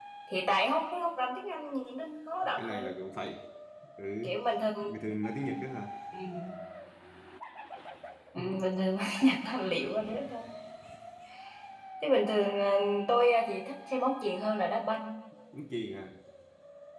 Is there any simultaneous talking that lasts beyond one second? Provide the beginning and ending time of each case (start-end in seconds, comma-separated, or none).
none